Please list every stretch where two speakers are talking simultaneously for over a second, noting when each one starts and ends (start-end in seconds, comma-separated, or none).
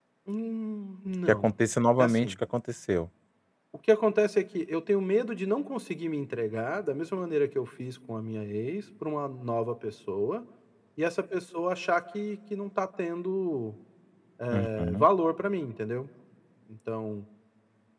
none